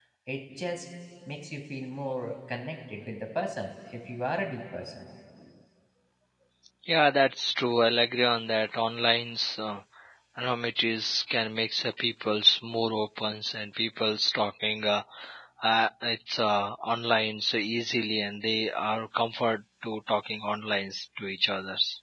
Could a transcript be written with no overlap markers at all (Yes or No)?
Yes